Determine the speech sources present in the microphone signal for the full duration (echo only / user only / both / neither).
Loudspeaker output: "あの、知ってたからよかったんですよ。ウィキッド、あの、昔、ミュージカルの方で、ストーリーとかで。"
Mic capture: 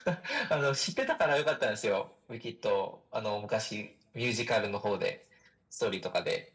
echo only